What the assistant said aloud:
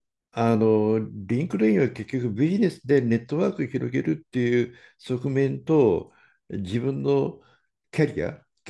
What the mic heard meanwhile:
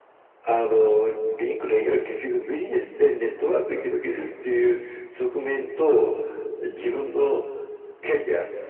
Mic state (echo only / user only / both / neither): echo only